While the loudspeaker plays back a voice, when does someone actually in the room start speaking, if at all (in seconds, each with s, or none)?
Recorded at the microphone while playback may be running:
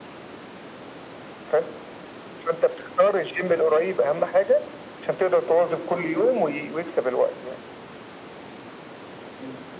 none